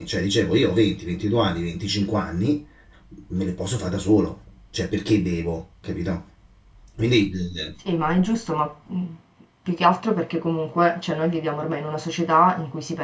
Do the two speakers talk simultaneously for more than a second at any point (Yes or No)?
No